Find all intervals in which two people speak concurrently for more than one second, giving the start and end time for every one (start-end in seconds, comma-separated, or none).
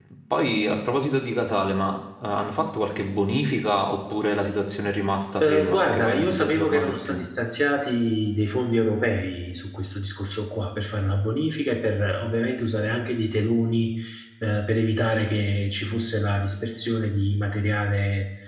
5.4-7.2